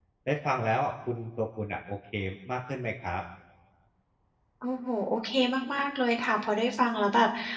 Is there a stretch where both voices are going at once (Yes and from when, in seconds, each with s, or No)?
No